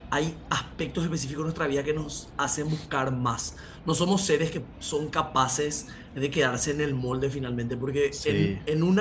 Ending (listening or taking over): listening